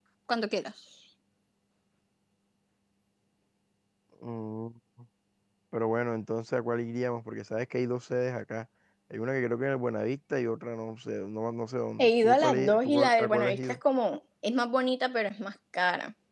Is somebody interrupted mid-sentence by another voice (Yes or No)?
Yes